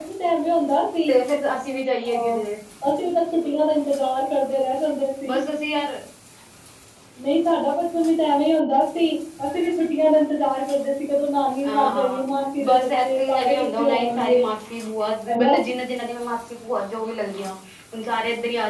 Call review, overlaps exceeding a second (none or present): present